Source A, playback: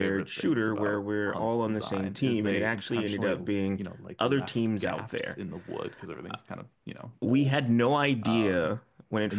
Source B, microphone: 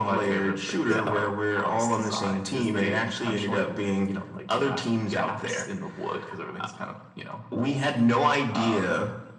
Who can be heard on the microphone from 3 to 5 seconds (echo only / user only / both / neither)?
echo only